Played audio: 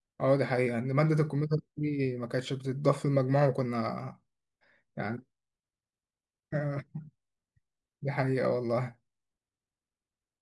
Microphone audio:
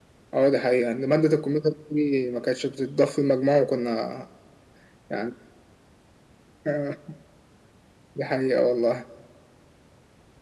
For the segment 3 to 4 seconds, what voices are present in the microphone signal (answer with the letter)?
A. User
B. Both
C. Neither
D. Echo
D